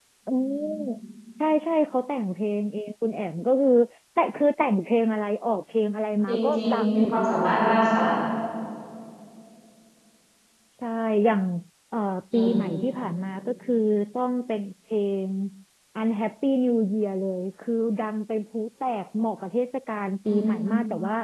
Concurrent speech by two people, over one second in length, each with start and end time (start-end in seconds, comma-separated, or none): 6.3-7.6